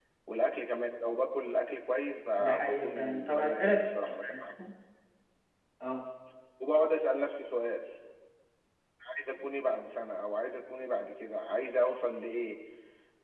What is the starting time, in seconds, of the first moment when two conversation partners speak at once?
2 s

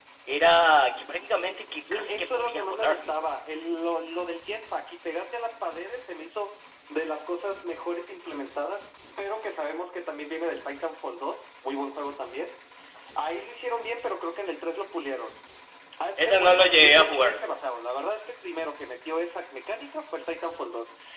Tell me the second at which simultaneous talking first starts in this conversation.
2 s

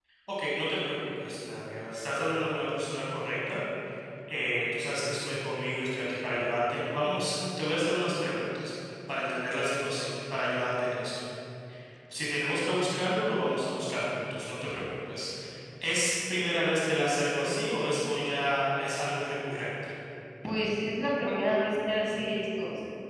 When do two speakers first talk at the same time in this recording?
none

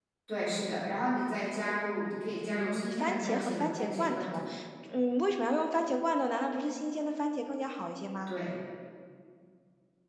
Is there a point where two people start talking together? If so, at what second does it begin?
2 s

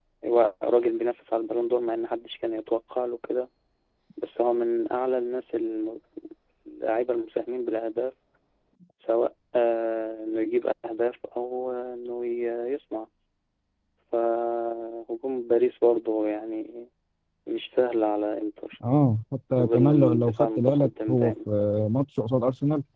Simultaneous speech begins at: 20 s

